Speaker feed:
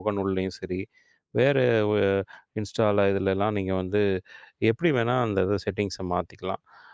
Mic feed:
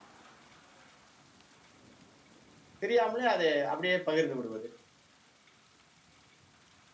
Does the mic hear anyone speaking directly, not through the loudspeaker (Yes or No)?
Yes